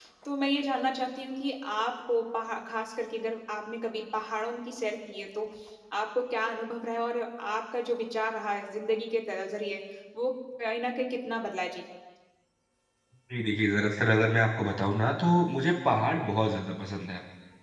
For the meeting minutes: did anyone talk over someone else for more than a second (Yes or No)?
No